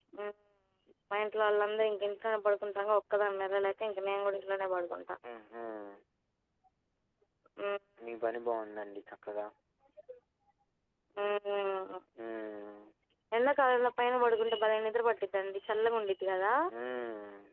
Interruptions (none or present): none